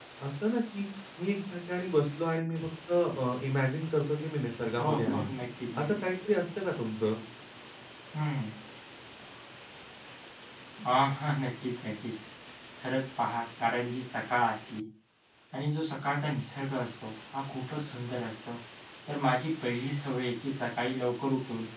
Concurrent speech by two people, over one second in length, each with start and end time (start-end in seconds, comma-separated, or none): none